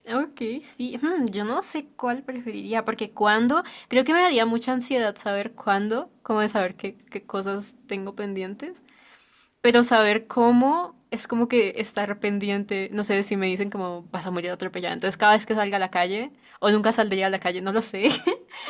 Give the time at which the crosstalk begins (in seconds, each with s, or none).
none